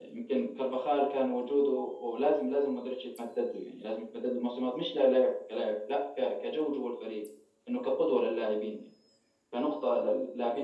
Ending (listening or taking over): listening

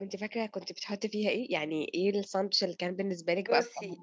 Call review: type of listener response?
taking over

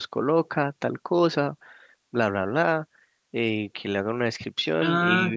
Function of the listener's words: listening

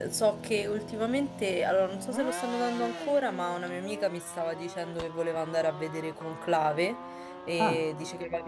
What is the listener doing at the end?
listening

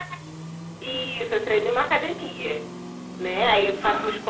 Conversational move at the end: listening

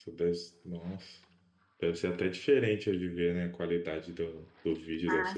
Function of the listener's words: taking over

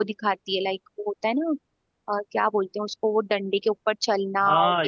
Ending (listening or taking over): taking over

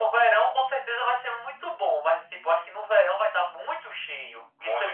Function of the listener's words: listening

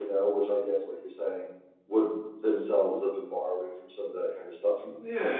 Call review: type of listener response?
taking over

